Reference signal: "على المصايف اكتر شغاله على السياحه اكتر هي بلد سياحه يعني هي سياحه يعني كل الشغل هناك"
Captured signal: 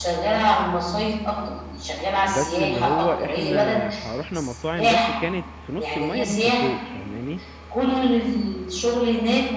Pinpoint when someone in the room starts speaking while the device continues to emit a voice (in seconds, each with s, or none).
2.2 s